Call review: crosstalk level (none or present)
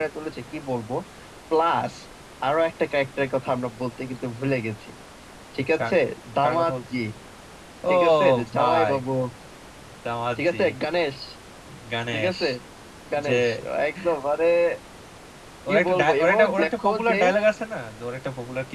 present